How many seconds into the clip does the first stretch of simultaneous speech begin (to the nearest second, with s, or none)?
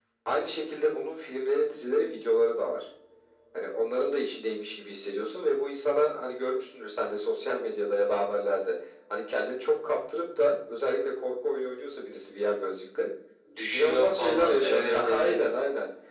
14 s